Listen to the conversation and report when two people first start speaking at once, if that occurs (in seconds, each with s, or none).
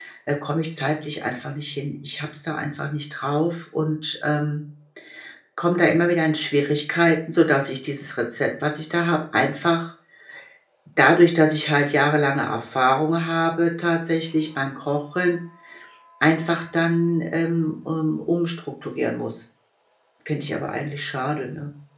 none